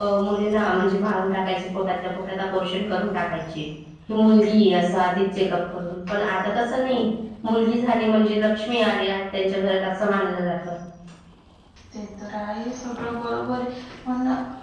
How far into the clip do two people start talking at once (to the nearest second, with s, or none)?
none